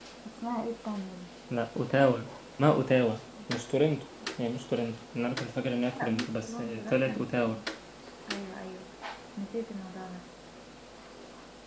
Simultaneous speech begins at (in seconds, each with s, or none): 5.9 s